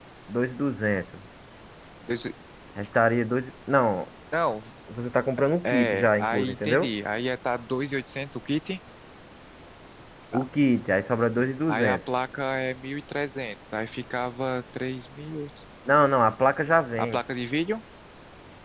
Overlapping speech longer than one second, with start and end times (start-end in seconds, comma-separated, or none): 5.7-6.9